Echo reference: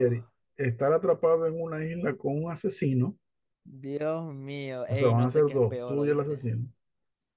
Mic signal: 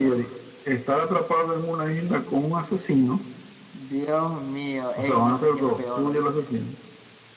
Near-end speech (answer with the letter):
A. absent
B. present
A